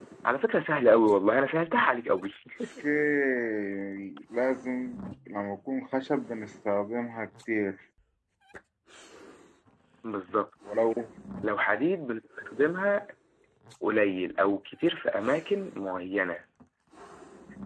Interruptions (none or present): none